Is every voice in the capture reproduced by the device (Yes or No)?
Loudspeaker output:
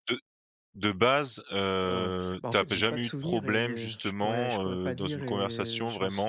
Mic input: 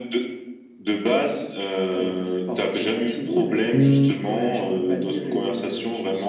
No